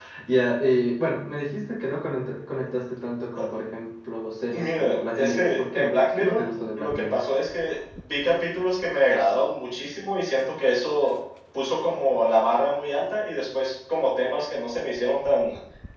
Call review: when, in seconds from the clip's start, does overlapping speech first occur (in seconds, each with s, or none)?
4.5 s